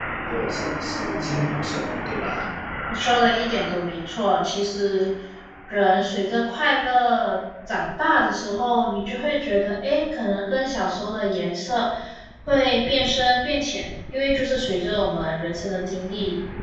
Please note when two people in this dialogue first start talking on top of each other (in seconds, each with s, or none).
none